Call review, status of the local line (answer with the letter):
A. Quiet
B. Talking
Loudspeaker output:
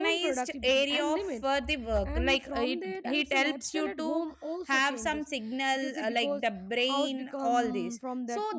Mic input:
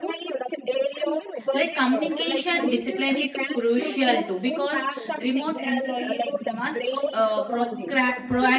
B